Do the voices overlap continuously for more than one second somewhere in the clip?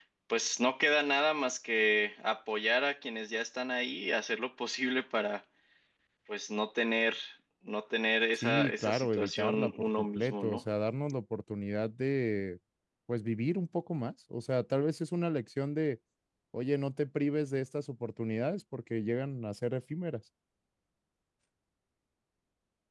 Yes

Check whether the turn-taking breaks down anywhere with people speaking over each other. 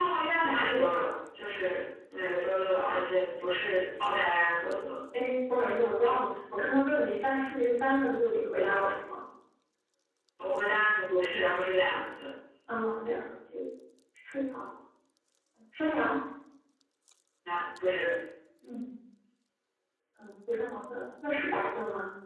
No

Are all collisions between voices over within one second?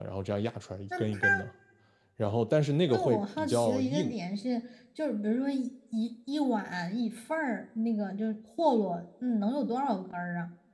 No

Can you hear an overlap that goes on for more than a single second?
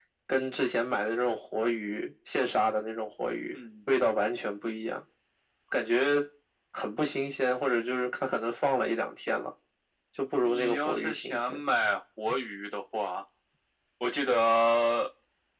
Yes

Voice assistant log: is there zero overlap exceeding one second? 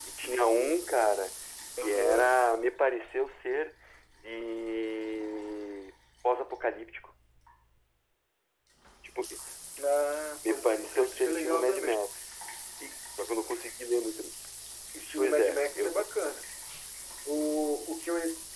No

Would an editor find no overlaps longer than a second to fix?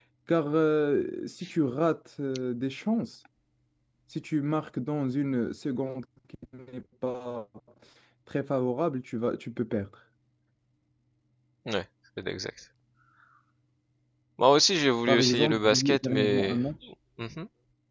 No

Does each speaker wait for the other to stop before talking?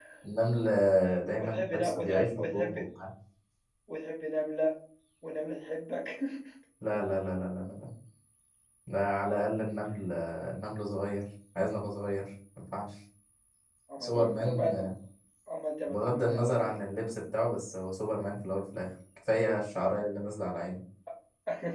No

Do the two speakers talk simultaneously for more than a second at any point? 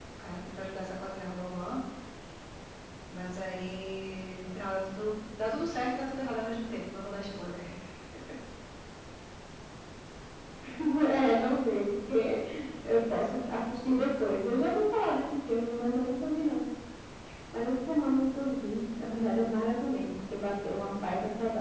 No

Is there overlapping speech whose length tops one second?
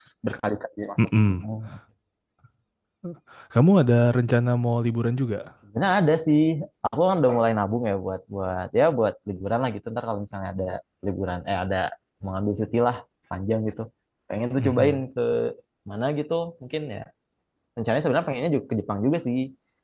No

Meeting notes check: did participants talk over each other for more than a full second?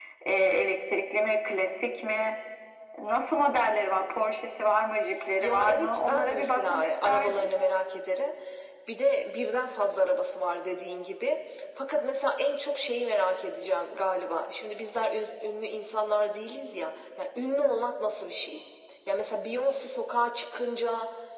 Yes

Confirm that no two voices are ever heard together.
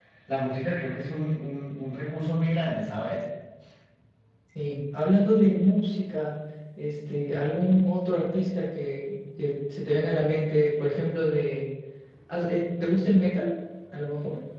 Yes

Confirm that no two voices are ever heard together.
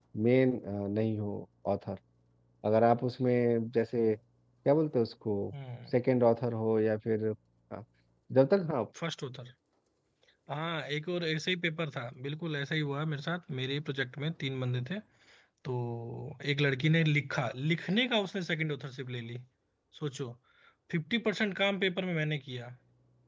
Yes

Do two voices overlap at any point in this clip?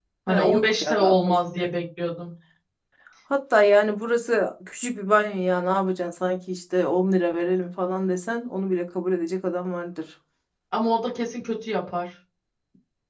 Yes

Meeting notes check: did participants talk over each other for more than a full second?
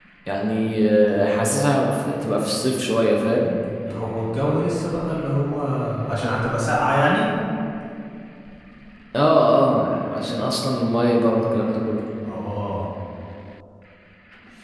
No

